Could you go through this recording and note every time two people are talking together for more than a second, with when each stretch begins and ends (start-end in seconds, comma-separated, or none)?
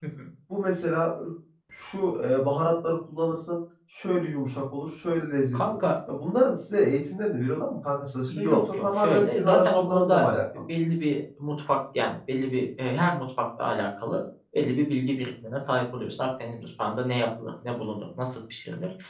8.3-10.3